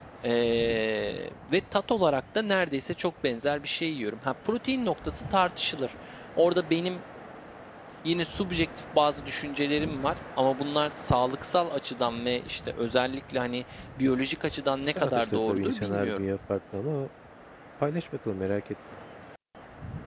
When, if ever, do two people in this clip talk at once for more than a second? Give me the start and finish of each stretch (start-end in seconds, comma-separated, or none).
15.0-16.2